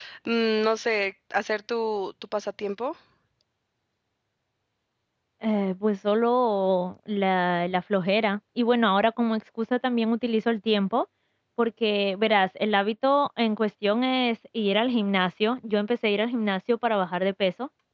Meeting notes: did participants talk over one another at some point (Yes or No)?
No